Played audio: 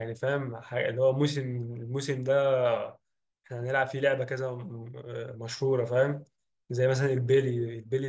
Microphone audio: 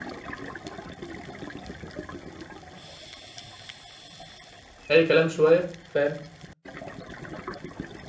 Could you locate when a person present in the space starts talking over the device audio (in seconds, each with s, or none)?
4.9 s